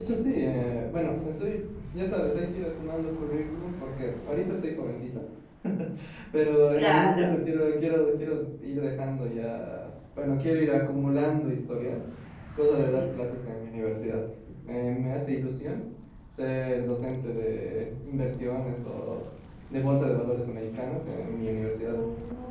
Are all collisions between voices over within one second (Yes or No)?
Yes